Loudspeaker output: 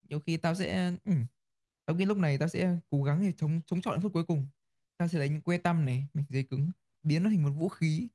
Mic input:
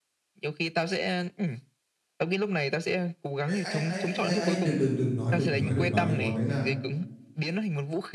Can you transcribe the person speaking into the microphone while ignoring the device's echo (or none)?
ấy ấy ấy ấy ấy, ấy. đừng đừng đừng nói đừng nói đừng nói cái món đấy ra